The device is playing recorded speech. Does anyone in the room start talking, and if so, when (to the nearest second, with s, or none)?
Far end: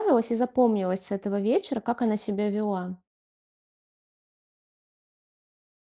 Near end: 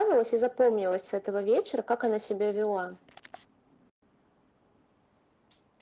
none